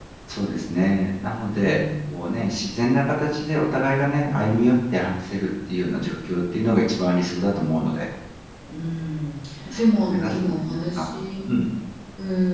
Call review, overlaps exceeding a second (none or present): present